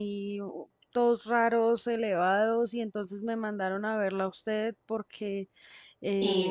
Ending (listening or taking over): listening